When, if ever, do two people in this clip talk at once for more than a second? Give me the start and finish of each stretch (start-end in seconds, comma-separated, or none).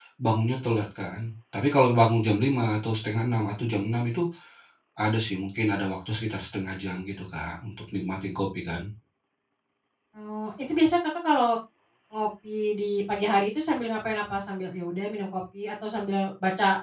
none